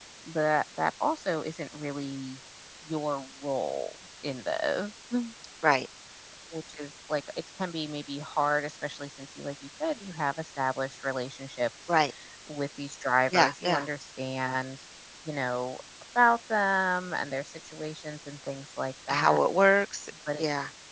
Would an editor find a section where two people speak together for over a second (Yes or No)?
No